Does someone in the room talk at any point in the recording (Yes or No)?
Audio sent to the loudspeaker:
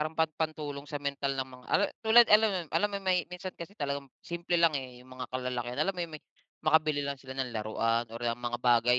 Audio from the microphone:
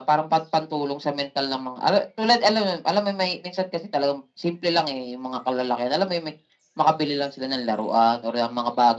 No